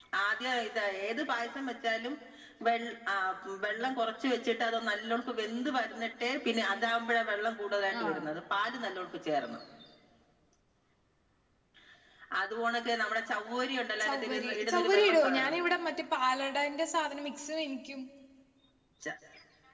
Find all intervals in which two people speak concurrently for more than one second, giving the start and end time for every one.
14.0-15.6

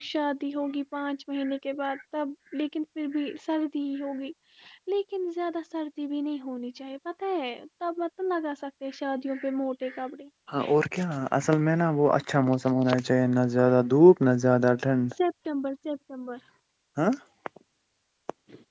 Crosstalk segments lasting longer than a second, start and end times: none

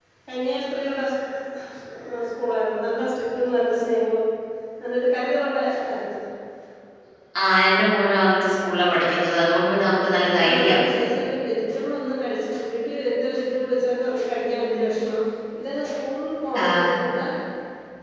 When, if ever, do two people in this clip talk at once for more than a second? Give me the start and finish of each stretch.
none

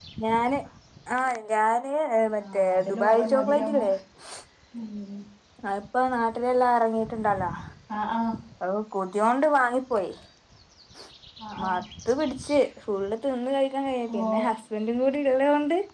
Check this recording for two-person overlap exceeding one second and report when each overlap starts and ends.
2.4-3.8

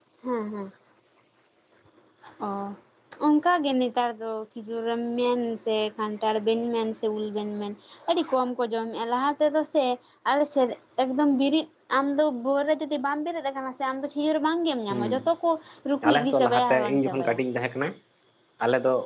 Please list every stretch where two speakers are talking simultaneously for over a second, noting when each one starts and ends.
16.1-17.4

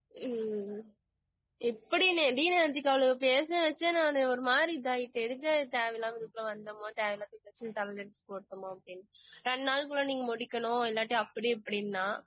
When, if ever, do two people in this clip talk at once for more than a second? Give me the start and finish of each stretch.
none

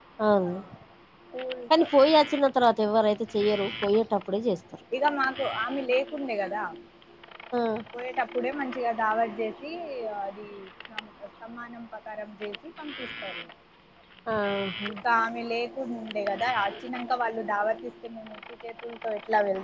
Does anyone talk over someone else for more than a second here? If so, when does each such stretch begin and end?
none

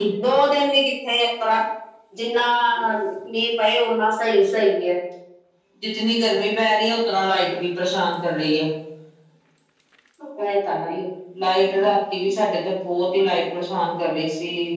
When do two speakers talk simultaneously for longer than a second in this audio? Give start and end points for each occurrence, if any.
none

